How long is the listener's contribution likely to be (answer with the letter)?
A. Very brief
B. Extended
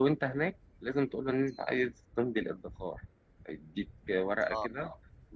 A